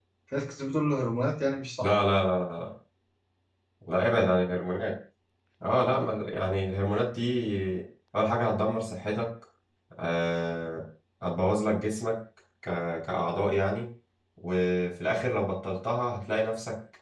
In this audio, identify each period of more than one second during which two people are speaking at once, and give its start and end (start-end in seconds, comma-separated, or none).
none